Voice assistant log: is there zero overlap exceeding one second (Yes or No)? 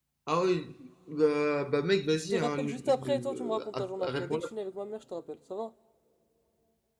No